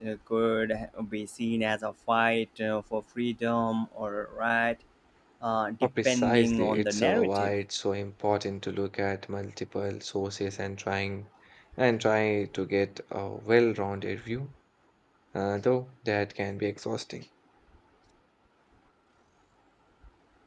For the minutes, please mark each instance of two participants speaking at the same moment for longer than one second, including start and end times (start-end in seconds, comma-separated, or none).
5.8-7.5